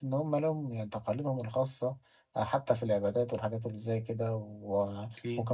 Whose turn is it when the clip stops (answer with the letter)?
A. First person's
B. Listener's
A